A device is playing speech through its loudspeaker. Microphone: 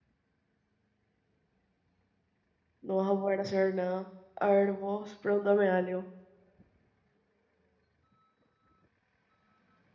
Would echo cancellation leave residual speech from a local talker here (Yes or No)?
Yes